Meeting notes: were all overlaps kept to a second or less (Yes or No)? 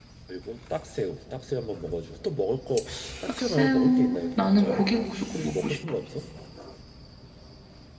No